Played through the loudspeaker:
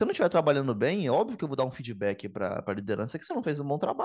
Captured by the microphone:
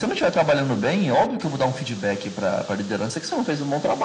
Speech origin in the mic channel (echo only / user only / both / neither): echo only